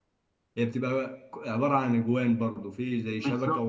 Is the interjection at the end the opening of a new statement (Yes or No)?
Yes